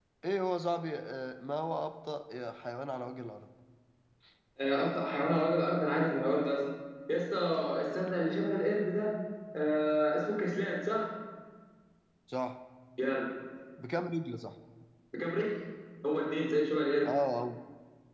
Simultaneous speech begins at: none

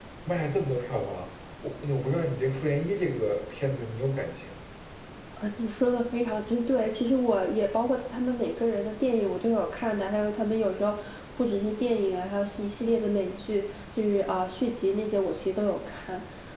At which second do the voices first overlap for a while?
none

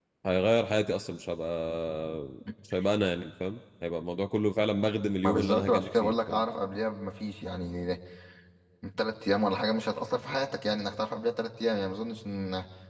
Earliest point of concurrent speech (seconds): 5.2 s

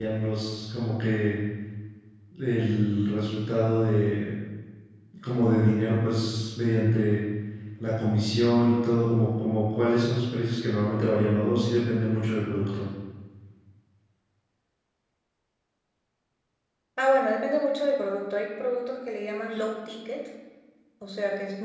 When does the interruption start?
none

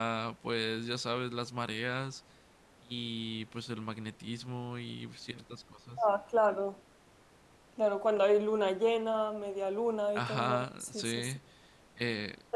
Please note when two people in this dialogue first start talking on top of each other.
10.2 s

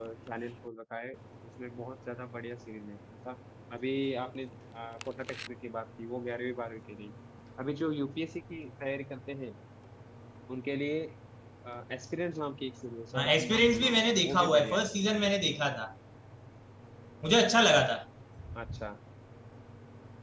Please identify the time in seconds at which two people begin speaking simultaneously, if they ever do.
13.1 s

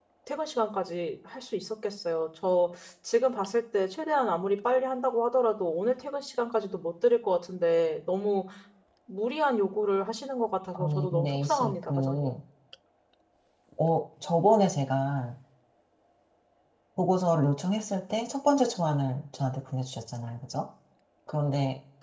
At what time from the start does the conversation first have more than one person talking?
10.7 s

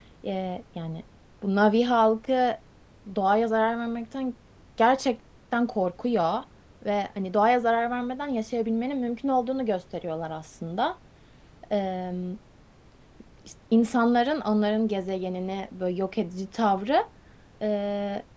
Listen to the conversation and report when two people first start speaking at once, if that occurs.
none

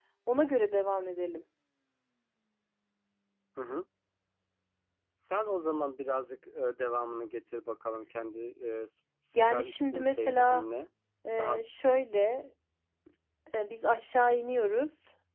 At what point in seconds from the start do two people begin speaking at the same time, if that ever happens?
9.3 s

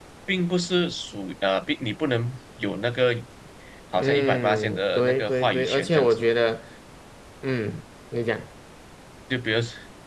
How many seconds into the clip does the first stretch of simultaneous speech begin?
4.0 s

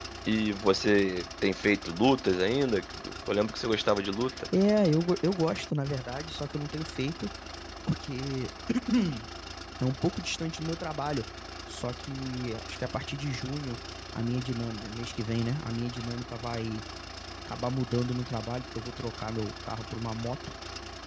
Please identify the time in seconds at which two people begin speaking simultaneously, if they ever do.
none

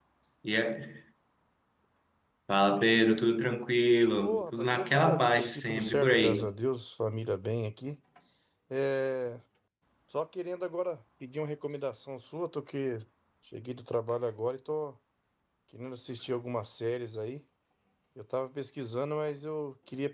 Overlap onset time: 4.2 s

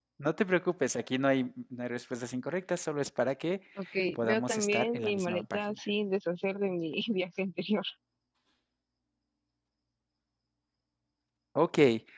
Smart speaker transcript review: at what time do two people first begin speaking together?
4.2 s

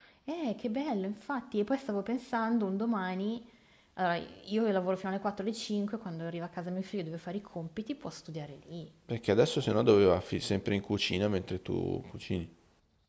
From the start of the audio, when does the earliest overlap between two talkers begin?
none

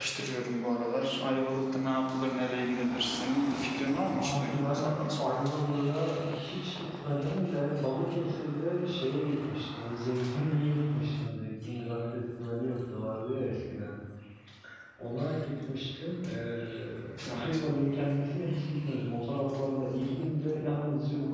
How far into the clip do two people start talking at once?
4.1 s

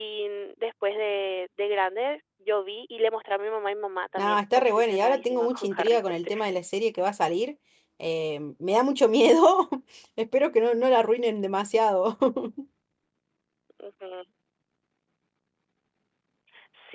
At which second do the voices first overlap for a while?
4.2 s

